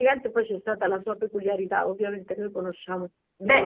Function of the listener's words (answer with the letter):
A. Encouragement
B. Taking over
B